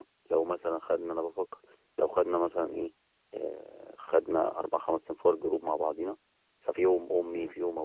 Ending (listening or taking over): listening